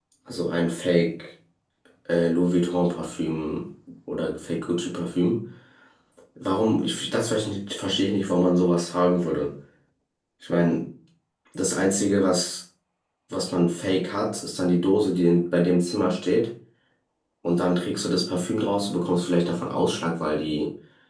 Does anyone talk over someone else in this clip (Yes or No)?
No